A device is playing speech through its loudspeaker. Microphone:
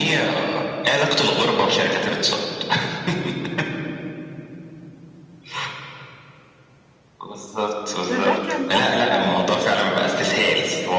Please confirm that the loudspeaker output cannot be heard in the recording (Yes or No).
No